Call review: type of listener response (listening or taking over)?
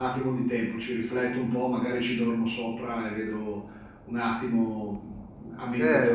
taking over